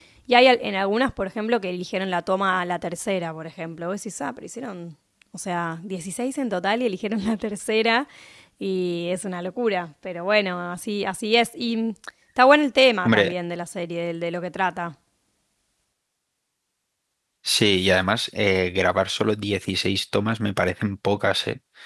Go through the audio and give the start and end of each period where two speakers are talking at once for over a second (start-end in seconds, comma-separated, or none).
none